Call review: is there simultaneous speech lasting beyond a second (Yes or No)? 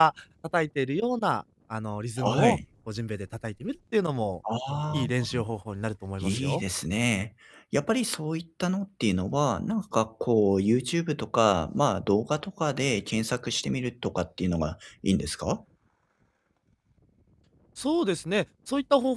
No